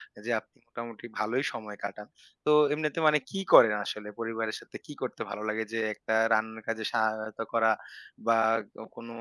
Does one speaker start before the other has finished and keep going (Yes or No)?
No